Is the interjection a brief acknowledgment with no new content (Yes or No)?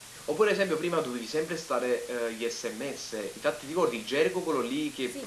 No